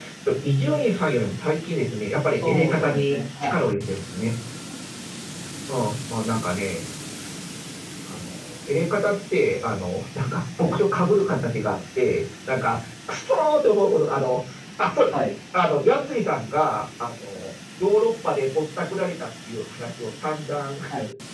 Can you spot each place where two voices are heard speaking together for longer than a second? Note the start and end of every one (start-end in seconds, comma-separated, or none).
2.4-3.6